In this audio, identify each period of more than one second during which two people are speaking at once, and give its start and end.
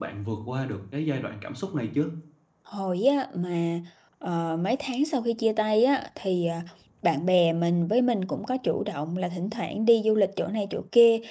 none

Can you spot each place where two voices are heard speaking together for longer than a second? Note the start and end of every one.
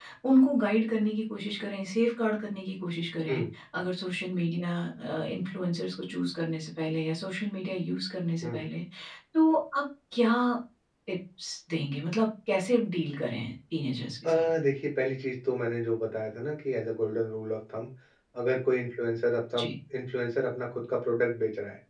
none

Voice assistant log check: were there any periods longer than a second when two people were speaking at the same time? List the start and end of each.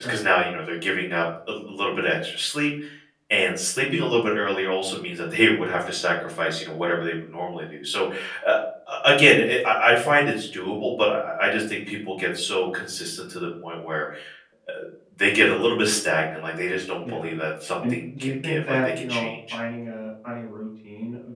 17.9-19.6

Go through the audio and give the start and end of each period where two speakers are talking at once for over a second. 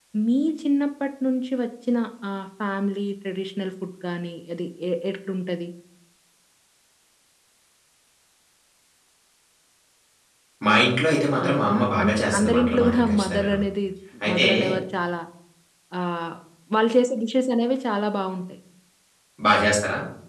11.4-13.6

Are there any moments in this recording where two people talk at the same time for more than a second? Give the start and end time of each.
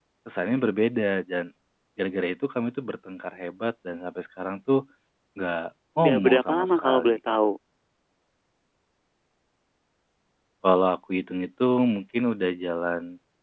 6.0-7.2

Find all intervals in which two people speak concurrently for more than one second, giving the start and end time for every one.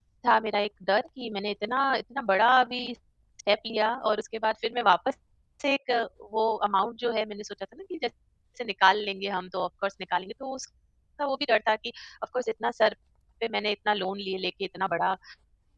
none

